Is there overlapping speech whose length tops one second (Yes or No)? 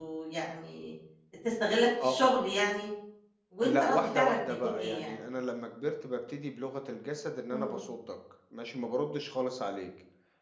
Yes